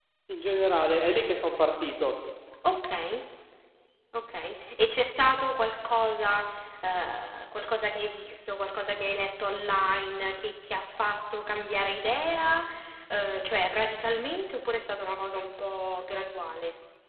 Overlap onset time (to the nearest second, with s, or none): none